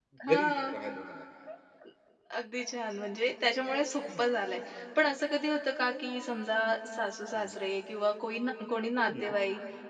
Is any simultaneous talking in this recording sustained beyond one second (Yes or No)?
No